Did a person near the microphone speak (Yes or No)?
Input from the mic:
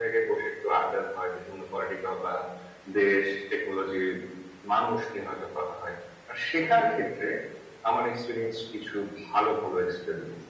No